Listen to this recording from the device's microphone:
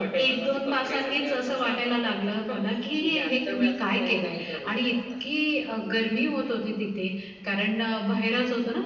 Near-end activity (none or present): none